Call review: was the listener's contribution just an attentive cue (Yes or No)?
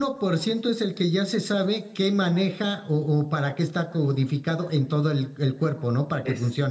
No